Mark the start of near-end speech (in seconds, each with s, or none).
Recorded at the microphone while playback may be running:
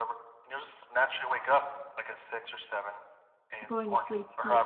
3.6 s